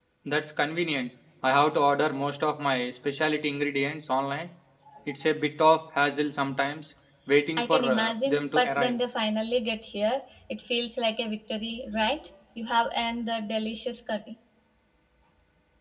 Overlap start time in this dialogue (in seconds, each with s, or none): 7.6 s